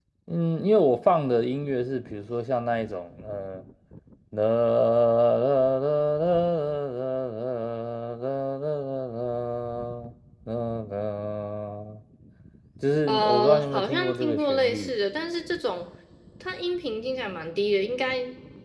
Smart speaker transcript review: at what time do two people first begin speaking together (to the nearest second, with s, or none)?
13 s